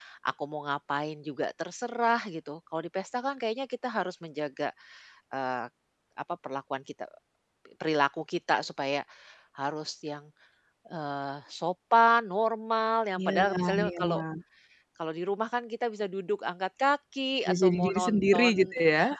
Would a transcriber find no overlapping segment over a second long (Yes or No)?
No